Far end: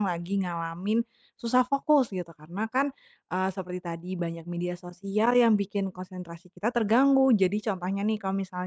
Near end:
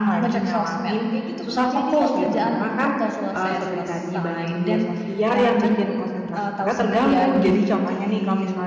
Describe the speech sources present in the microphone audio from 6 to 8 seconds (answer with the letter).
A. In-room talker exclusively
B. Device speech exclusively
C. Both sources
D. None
C